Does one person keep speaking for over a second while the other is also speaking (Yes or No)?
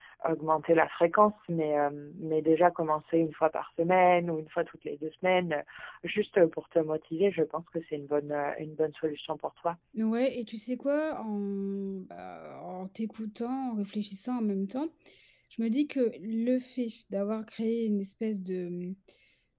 No